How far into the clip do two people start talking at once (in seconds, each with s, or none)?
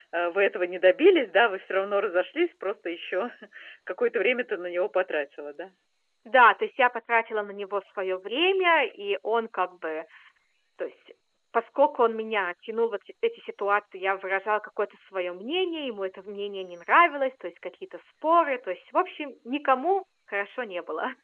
none